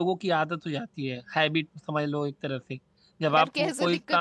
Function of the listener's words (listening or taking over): taking over